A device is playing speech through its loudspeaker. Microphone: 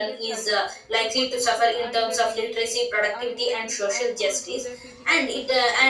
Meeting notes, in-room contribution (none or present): present